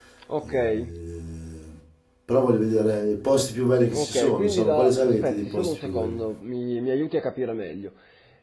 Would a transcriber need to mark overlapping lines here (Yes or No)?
Yes